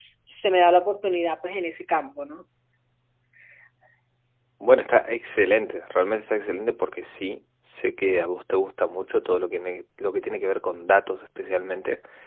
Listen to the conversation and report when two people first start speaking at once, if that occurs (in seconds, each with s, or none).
none